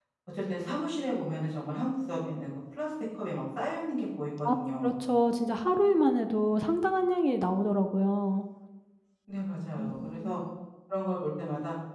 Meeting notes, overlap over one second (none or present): none